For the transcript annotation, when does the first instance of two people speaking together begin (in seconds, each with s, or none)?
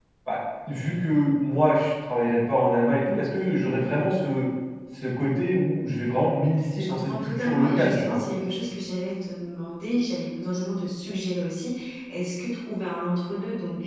6.8 s